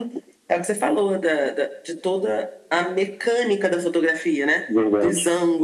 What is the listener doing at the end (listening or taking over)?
listening